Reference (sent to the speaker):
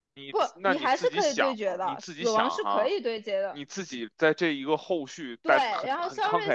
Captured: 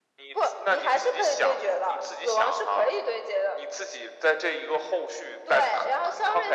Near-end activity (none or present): none